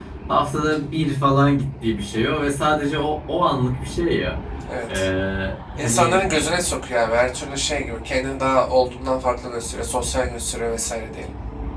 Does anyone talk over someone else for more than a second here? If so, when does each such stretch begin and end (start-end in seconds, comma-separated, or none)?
none